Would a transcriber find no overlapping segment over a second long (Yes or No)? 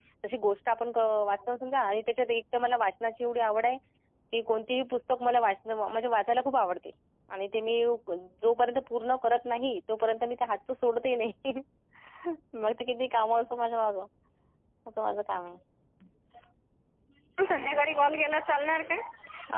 Yes